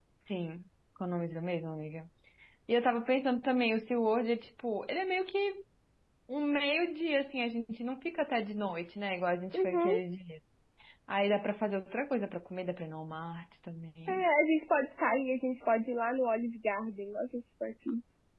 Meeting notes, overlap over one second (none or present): none